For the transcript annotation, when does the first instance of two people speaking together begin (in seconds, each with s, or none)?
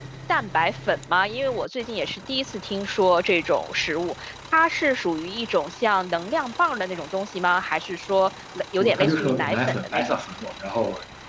8.8 s